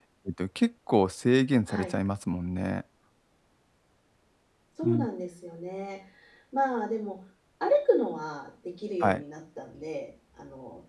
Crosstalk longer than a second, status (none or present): none